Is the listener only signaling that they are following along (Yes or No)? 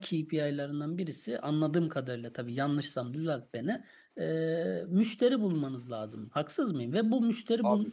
Yes